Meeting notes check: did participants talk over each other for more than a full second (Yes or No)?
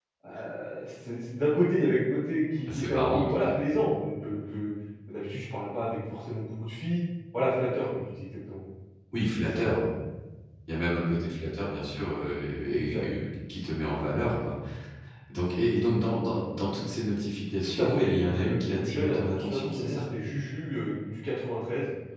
Yes